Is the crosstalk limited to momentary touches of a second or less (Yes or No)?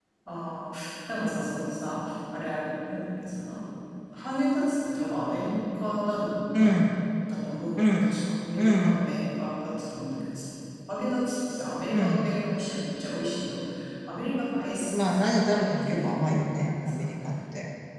No